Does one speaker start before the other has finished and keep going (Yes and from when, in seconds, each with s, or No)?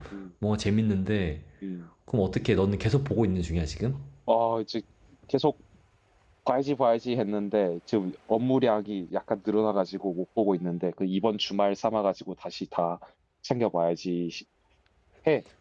No